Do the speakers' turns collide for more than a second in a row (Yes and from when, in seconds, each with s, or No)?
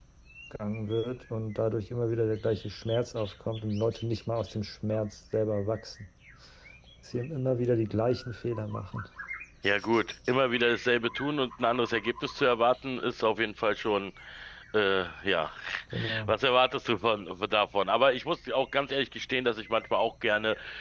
No